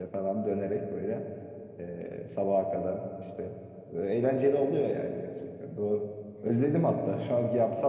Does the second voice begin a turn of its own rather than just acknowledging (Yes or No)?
No